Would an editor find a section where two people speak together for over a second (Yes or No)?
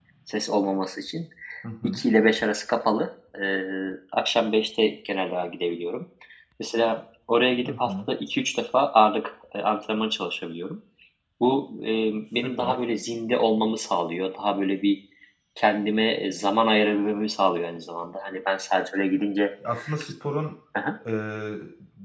No